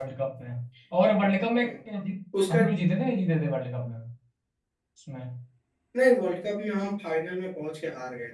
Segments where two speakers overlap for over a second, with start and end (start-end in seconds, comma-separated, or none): none